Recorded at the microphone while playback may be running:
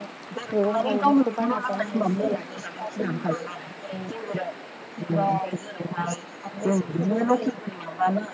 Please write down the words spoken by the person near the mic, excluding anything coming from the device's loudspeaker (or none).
मैगं थाइगंखौ बायनासो जानो हायोसै